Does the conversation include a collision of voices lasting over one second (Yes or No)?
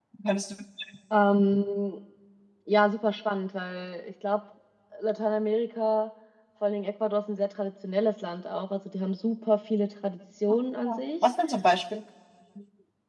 No